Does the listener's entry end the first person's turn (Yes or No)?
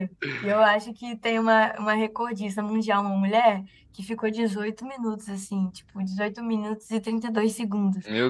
No